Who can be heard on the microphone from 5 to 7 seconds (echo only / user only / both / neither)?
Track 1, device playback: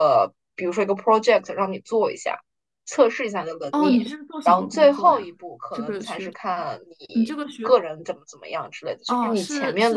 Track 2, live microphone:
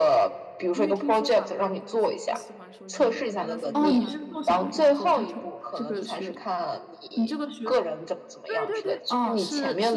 both